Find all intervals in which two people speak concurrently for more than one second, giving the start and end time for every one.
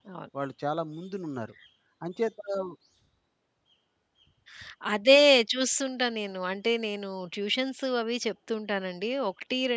none

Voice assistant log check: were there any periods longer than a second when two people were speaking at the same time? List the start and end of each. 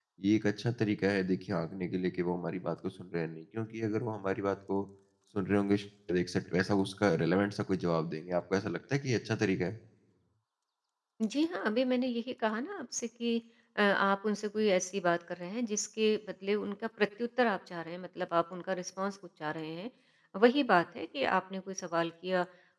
none

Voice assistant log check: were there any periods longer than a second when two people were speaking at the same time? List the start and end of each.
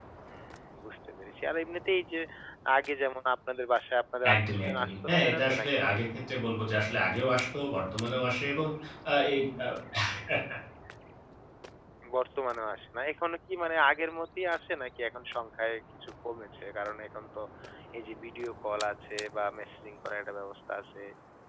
4.3-5.7

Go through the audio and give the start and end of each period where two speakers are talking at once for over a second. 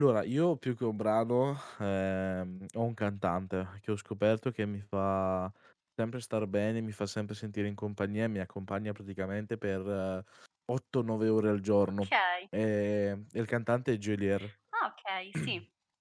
none

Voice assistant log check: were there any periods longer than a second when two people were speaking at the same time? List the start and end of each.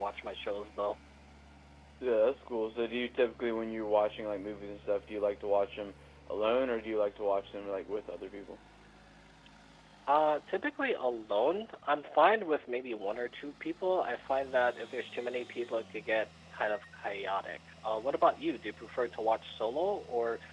none

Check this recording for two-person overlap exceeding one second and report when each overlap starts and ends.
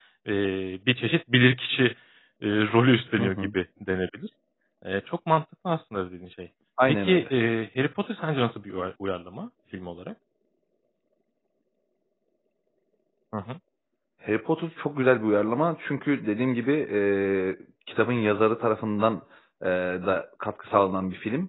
none

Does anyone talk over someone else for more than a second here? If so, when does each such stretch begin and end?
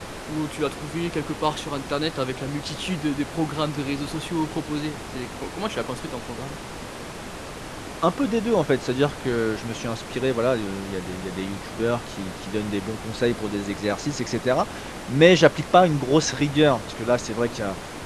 none

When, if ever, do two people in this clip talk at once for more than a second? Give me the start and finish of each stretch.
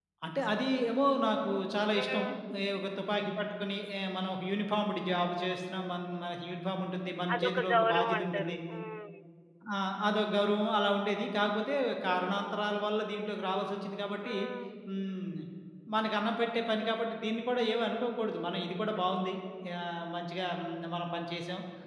7.3-8.5

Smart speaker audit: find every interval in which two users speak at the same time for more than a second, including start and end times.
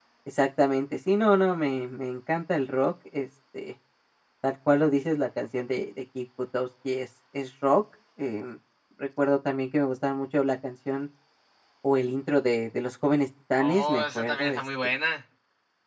13.6-14.9

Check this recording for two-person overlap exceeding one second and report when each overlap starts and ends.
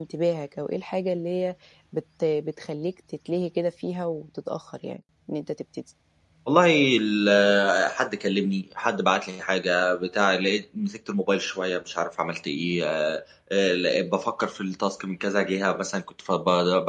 none

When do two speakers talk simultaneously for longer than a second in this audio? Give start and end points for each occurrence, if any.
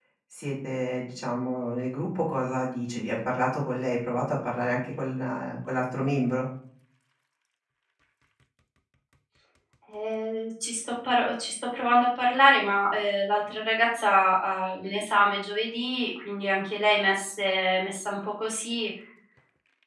none

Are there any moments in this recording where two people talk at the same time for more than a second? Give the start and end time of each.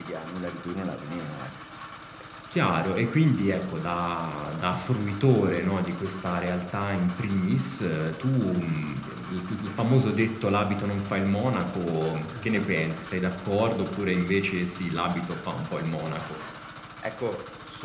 none

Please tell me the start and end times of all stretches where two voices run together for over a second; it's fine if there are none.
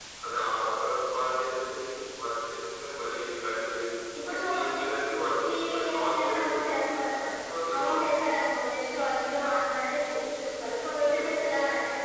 5.5-6.8

